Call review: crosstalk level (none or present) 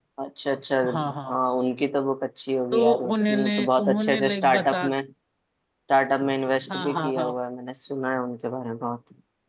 present